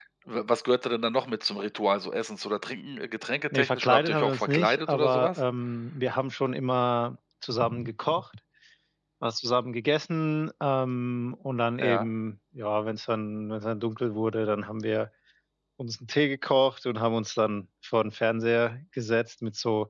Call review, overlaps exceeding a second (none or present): present